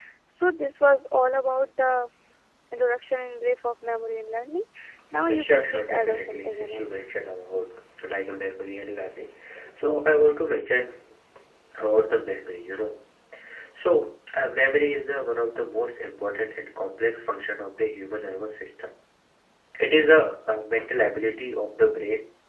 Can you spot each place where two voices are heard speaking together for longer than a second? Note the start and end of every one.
5.3-6.8

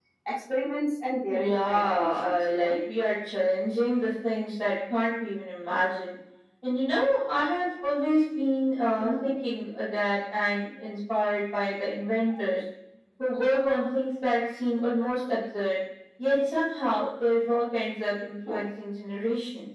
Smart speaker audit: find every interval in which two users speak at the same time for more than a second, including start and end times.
1.3-2.8

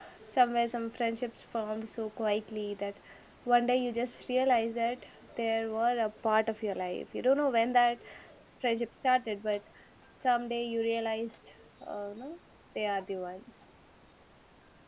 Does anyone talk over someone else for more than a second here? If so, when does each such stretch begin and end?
none

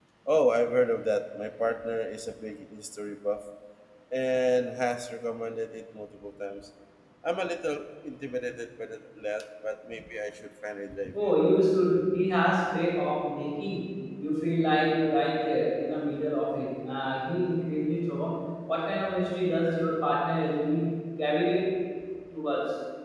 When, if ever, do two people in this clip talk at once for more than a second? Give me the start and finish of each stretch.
none

